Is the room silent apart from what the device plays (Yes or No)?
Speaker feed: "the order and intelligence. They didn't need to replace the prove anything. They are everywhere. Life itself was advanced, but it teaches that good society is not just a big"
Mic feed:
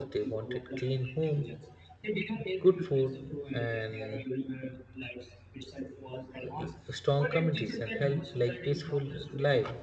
No